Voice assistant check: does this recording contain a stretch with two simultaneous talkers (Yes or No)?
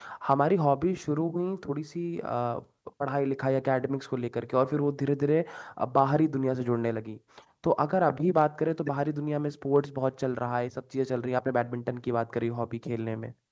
No